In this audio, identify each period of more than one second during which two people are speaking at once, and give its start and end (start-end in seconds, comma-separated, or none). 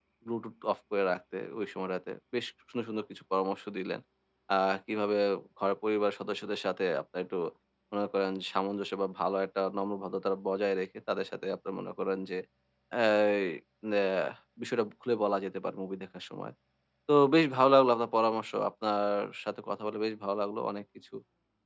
none